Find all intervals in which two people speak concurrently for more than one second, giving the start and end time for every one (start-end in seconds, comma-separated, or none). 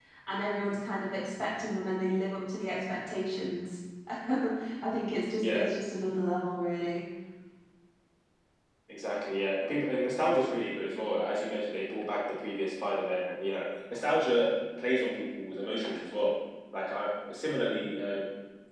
none